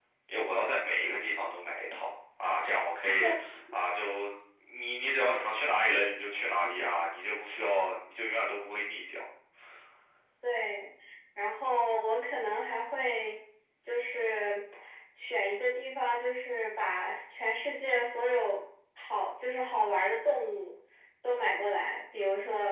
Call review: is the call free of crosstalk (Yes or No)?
Yes